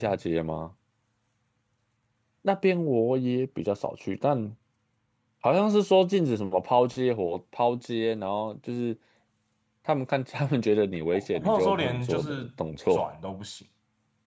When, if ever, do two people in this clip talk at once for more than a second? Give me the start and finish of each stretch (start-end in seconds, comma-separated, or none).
11.1-12.4